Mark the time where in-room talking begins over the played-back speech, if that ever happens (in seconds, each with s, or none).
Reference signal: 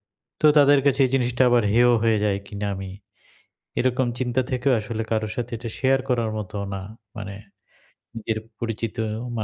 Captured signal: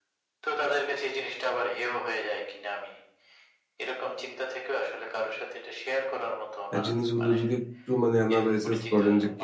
6.7 s